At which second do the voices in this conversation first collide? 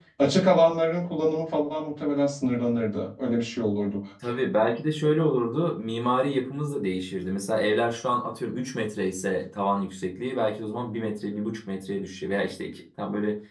none

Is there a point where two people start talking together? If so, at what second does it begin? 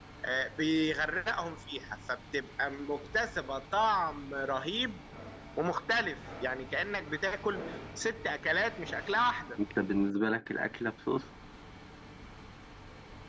none

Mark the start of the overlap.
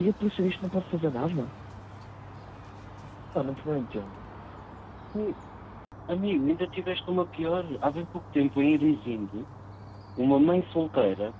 none

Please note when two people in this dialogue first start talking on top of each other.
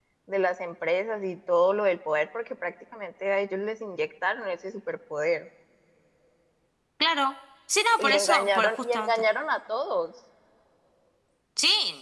8.0 s

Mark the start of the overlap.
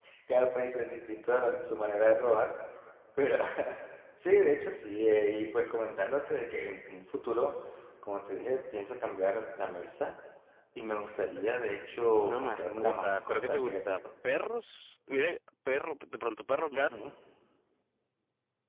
12.2 s

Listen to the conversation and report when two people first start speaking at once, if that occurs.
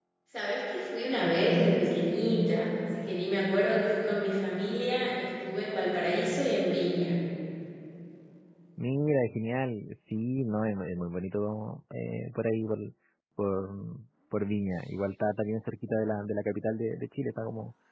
none

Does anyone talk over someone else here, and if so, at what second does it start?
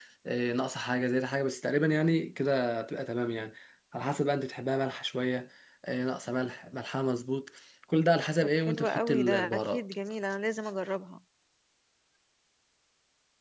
8.4 s

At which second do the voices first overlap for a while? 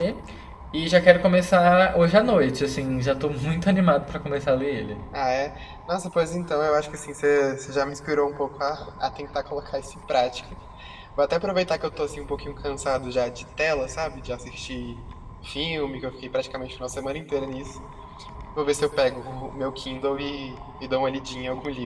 none

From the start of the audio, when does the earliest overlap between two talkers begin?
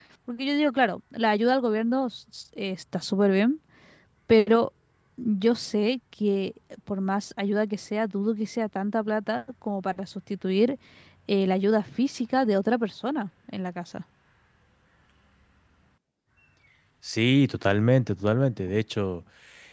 none

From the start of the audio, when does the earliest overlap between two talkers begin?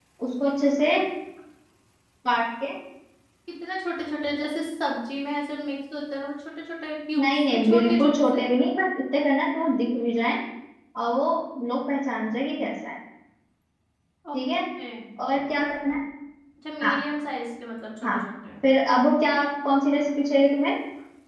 7.2 s

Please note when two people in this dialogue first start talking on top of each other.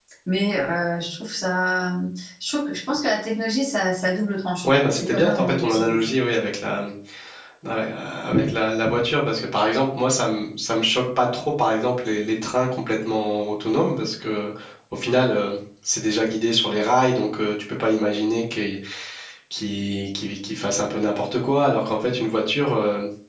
4.6 s

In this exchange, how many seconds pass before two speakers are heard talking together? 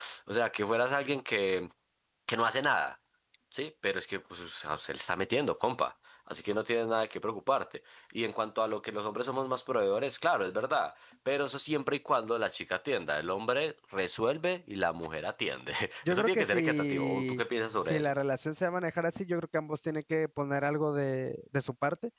16.1 s

